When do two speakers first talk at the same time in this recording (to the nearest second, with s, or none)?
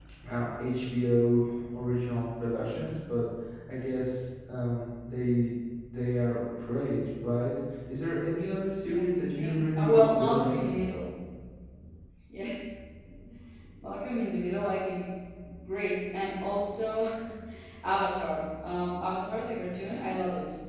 9 s